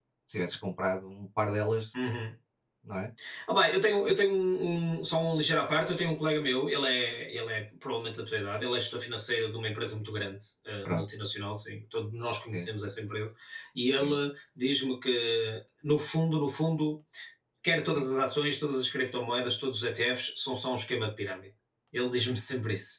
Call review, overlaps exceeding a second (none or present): none